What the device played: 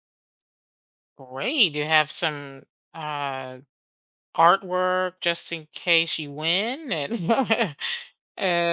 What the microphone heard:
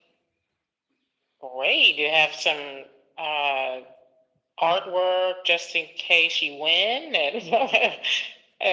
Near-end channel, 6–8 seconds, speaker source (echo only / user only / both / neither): echo only